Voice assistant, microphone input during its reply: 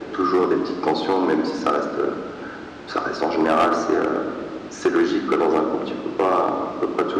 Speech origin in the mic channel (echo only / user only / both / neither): echo only